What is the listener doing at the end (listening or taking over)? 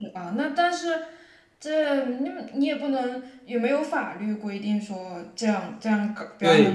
taking over